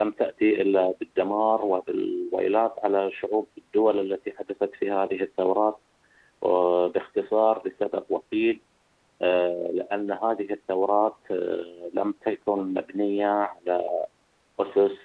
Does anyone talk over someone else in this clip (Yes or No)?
No